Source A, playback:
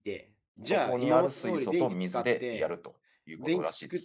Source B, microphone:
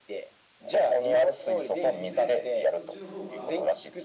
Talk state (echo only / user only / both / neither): both